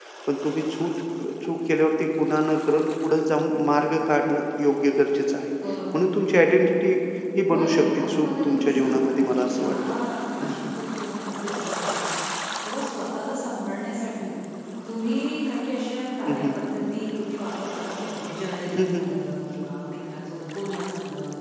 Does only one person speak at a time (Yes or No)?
No